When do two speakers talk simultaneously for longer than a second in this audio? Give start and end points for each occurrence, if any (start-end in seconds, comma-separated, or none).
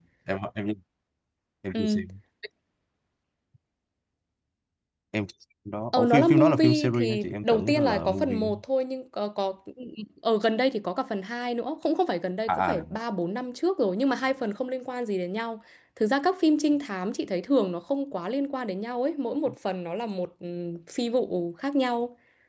5.9-8.5